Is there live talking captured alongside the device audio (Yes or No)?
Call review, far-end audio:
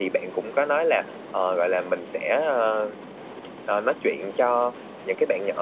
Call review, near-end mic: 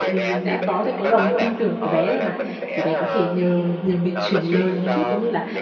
Yes